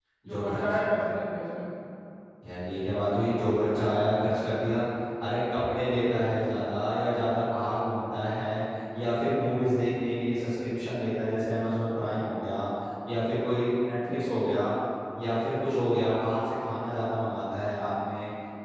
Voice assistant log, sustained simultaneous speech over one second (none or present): none